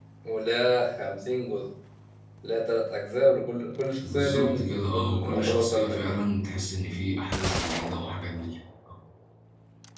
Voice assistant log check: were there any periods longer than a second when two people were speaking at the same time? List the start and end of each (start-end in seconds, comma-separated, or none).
4.1-6.2